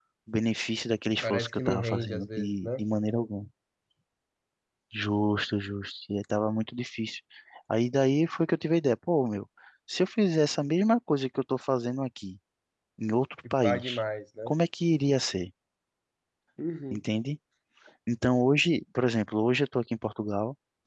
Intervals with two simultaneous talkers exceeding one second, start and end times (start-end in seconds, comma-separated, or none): 1.2-2.8